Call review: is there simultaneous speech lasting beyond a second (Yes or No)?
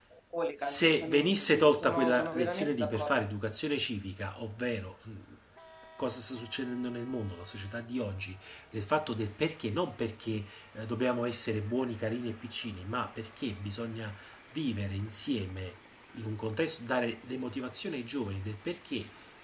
Yes